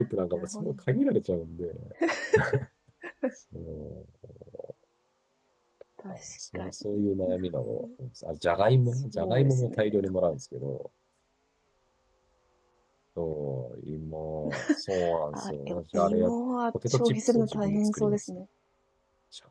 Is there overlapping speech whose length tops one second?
Yes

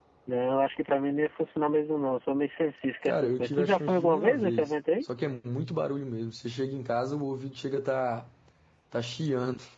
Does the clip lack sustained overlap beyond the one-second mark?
No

